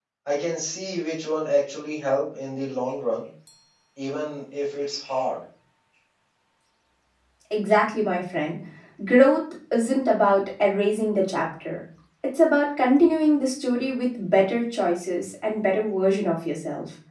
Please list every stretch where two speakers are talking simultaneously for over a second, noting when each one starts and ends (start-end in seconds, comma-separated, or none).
none